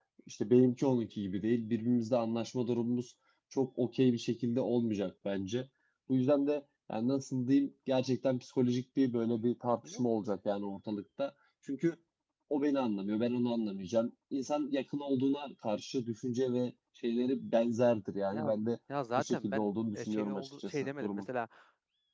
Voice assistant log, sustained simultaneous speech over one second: present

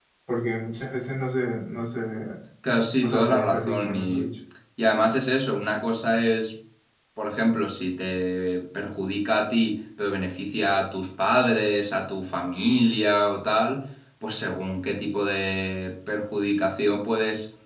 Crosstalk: present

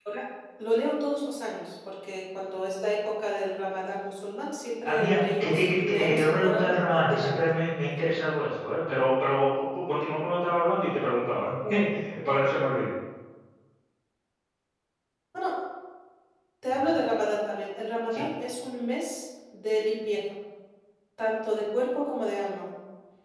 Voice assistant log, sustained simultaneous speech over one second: present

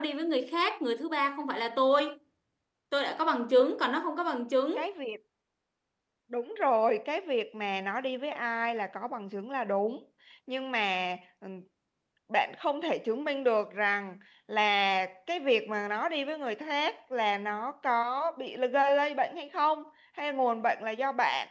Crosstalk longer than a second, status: none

